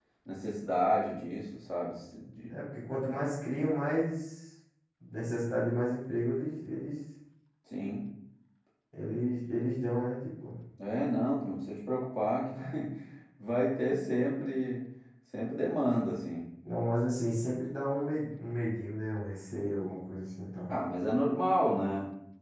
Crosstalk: none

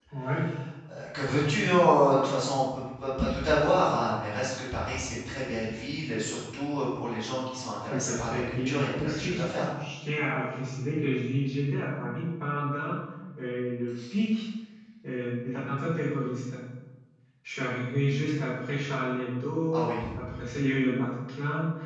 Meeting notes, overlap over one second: present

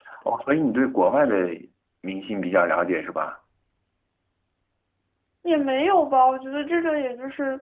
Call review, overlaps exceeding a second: none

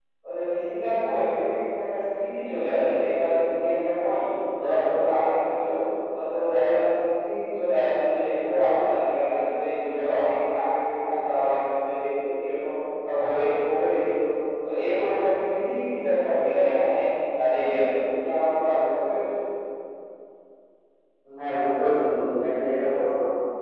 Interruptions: none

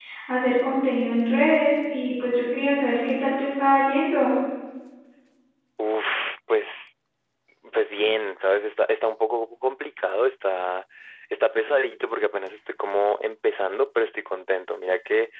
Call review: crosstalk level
none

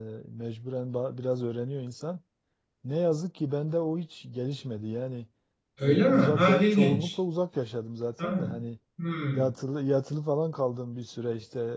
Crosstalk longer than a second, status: present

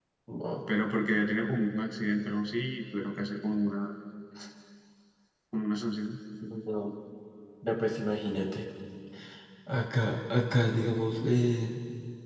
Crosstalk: none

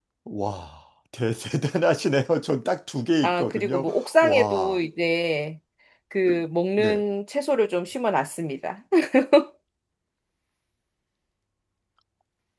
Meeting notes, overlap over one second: present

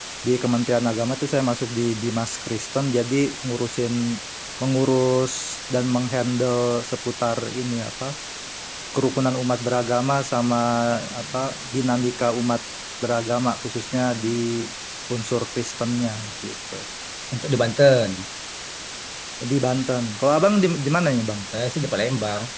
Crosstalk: none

